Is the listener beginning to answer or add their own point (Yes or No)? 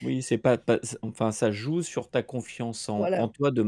No